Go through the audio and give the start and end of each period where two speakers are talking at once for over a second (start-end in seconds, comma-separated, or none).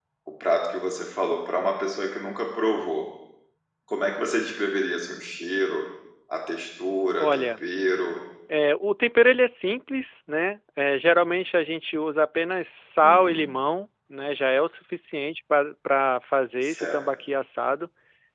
none